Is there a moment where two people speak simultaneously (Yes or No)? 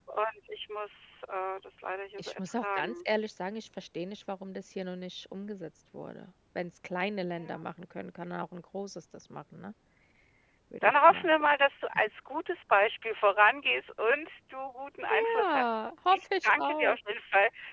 Yes